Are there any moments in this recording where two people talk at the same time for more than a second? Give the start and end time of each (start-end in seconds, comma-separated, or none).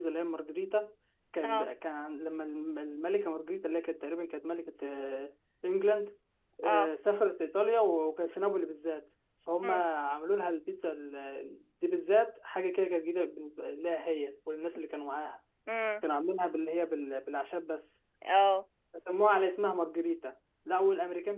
none